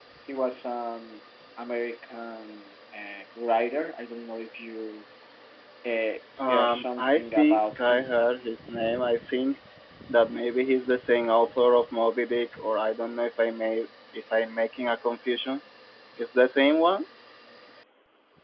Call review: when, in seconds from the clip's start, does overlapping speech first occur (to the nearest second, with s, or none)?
6 s